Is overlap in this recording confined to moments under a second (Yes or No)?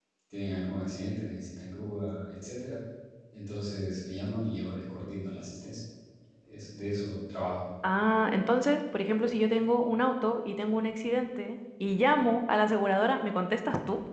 Yes